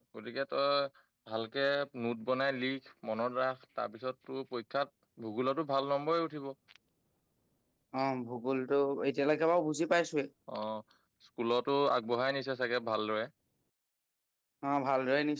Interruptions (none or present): none